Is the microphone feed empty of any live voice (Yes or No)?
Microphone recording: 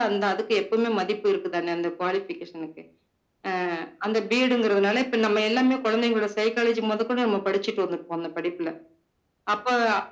Yes